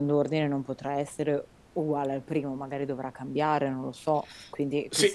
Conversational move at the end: taking over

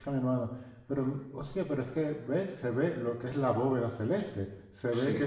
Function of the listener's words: listening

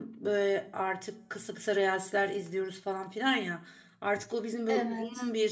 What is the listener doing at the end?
listening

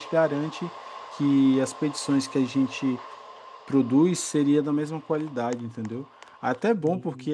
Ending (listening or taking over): listening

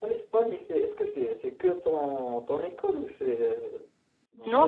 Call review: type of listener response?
taking over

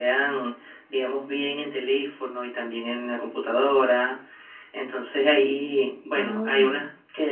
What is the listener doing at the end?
listening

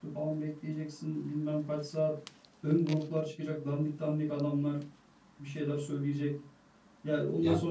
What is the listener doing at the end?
listening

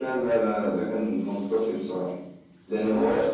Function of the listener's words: listening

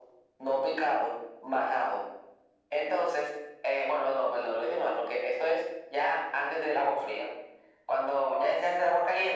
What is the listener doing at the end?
listening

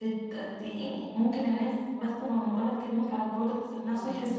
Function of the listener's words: listening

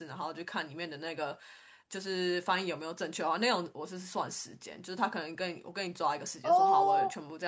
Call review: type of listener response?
listening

